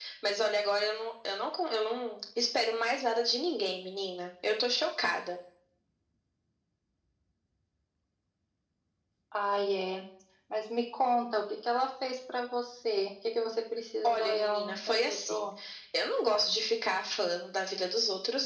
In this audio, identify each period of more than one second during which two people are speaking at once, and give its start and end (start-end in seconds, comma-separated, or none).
14.0-15.5